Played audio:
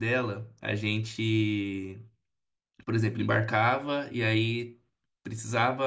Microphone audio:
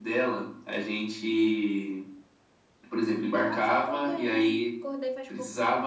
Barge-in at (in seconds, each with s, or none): 3.4 s